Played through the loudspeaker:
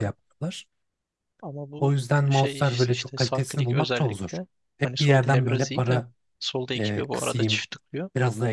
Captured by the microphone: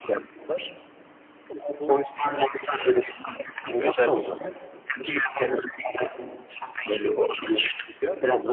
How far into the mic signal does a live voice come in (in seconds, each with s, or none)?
none